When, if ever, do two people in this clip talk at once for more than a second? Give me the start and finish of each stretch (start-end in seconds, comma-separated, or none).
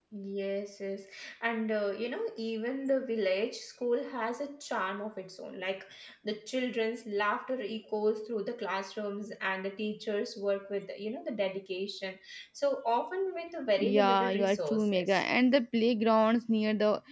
13.8-15.2